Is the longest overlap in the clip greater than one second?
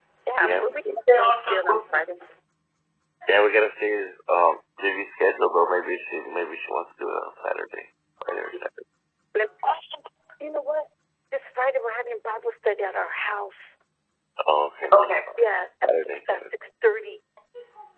Yes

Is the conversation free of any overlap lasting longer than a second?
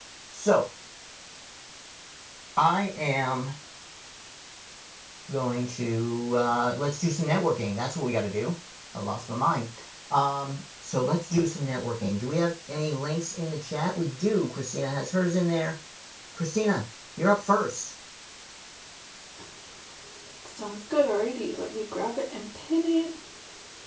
Yes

